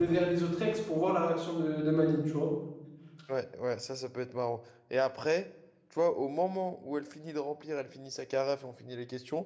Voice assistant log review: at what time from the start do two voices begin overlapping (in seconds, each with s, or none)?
none